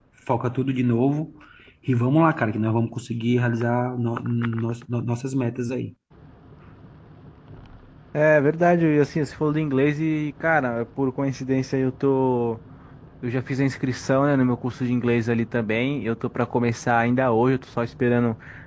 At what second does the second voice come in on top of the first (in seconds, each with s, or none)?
none